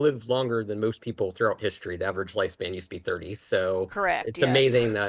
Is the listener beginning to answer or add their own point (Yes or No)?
No